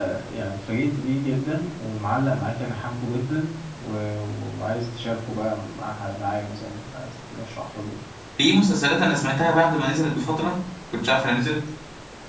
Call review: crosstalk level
none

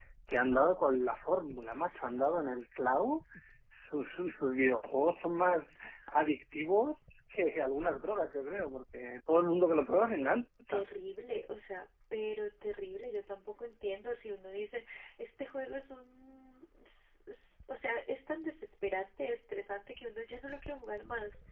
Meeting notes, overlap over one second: none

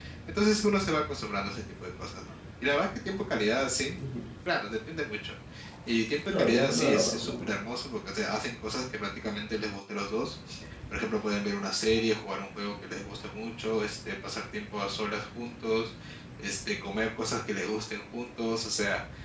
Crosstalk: present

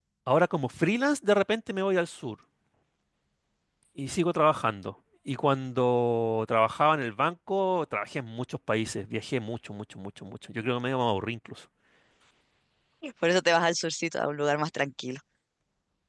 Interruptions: none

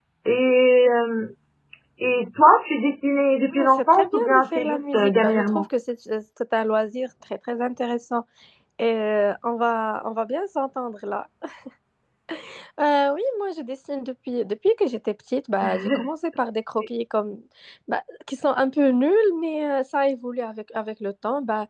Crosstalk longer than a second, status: present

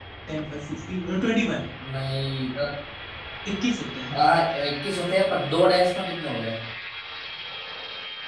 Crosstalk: none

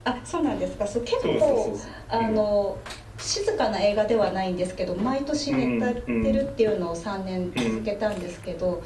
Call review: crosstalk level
present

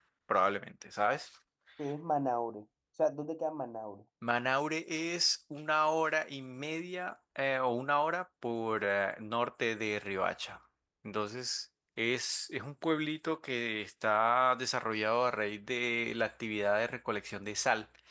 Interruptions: none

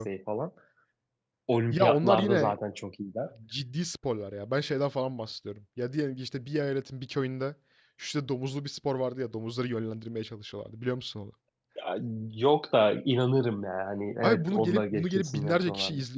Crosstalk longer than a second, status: present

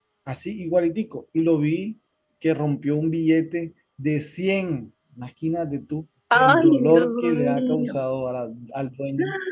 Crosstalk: present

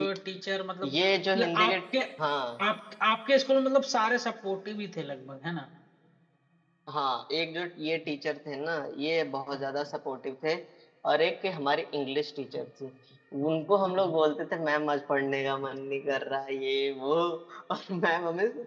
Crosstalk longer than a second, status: none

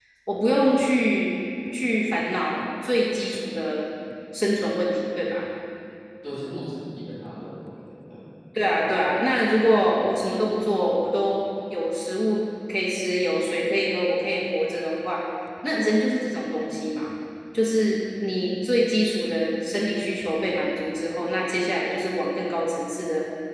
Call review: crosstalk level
none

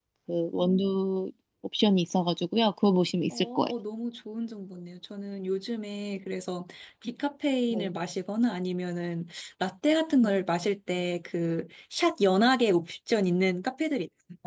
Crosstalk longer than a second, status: none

